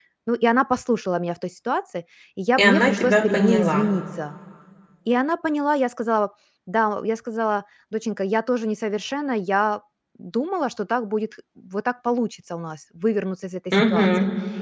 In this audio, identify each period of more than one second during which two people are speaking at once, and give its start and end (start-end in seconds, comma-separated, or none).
2.6-3.9